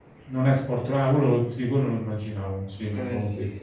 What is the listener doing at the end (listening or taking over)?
taking over